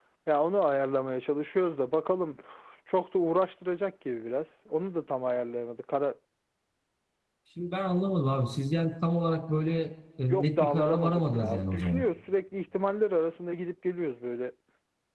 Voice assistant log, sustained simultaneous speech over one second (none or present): present